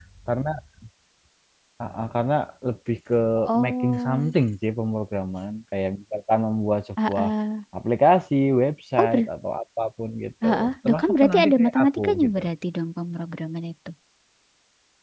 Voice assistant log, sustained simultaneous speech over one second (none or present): present